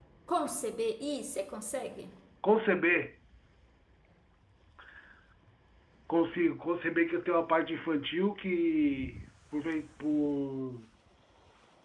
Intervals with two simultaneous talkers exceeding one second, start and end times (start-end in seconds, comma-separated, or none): none